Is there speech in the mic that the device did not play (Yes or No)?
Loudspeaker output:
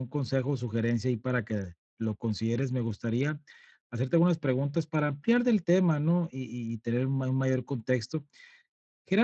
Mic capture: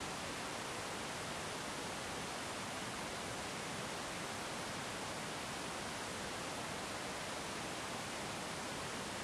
No